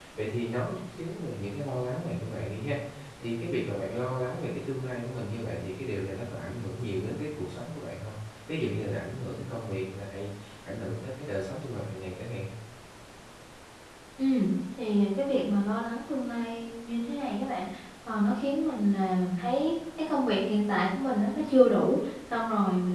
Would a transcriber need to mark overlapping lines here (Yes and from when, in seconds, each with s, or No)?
No